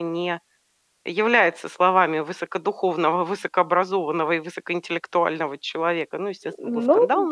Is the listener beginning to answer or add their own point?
Yes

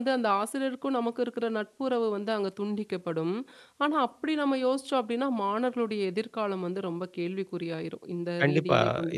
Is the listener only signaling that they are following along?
No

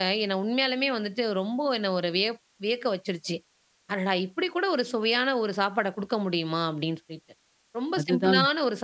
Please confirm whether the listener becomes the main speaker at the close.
No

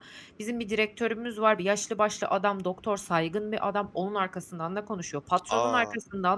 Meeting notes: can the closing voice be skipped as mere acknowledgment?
Yes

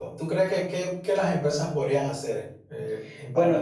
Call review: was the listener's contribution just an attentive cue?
No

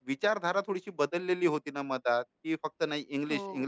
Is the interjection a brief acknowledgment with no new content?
Yes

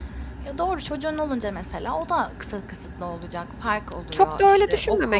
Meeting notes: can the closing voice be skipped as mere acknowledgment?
No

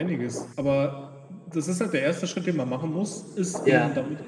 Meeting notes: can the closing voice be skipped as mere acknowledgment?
Yes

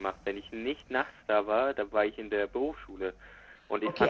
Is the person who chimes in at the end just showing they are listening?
No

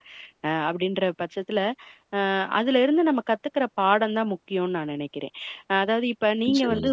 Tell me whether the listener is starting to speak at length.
No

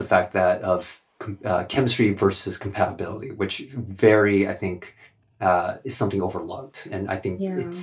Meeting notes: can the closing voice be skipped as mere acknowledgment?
Yes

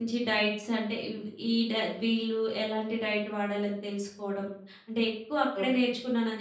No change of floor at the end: Yes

